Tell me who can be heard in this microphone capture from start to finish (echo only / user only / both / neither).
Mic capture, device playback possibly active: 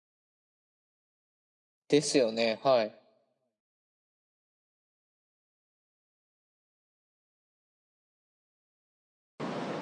user only